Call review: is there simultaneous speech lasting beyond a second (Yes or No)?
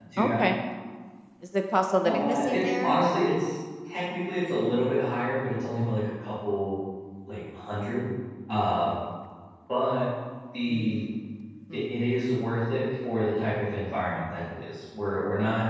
Yes